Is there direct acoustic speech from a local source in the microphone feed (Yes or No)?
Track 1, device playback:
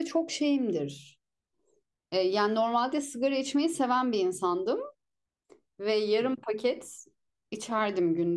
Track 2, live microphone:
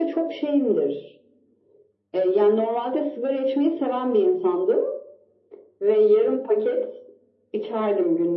No